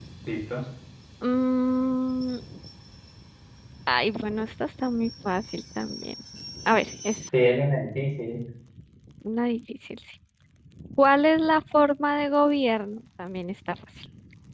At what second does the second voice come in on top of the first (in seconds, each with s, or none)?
none